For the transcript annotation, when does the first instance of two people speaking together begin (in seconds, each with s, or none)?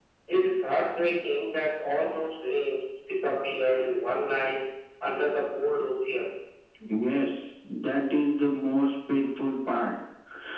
none